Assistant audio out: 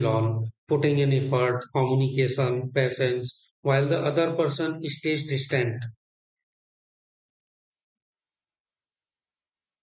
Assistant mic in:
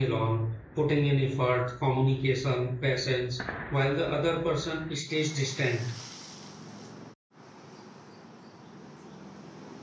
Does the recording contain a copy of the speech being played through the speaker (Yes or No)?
Yes